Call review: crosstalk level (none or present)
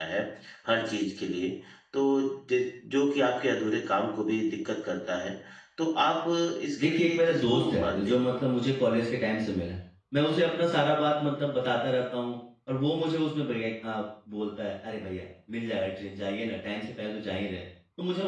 present